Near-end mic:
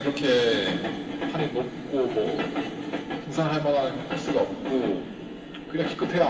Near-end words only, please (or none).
none